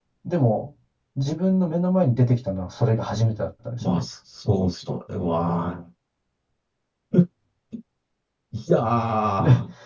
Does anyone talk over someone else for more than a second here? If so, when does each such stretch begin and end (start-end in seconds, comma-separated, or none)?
none